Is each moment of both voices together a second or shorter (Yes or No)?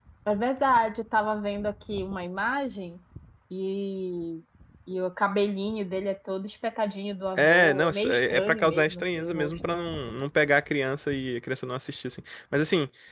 No